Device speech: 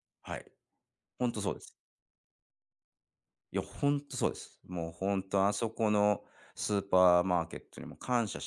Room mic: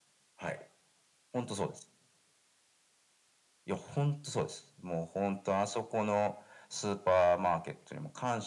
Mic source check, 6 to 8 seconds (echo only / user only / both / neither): echo only